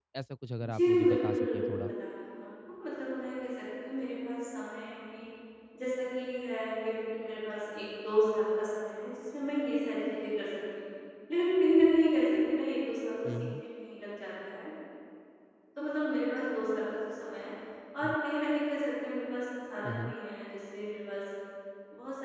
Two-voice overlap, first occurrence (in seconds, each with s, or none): 0.6 s